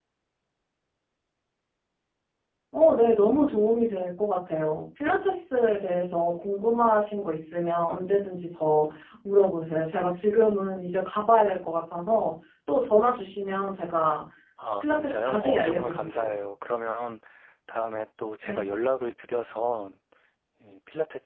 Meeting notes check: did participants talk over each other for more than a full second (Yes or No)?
Yes